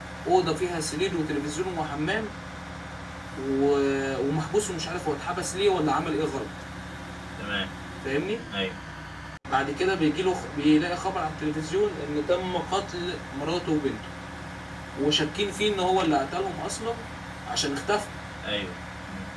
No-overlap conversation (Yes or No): Yes